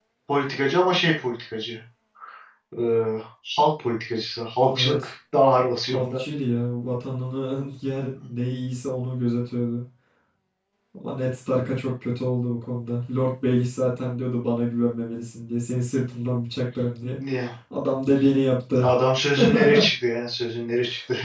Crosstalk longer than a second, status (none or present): none